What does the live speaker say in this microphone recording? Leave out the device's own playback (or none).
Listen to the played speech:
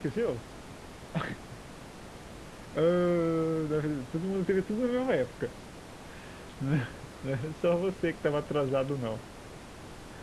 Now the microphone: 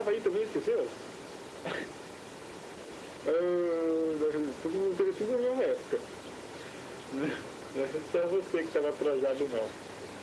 none